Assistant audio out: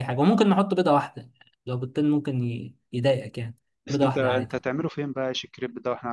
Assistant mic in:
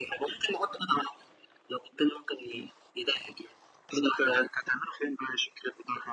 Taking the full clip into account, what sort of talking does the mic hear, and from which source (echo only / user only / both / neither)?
echo only